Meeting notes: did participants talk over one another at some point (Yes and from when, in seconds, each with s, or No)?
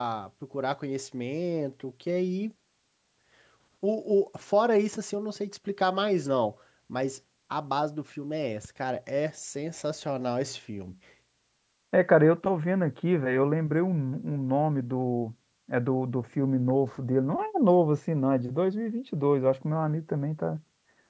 No